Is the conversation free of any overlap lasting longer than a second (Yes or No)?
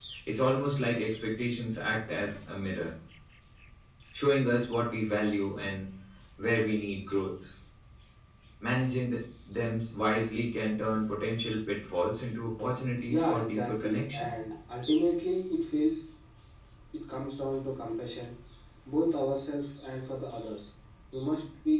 No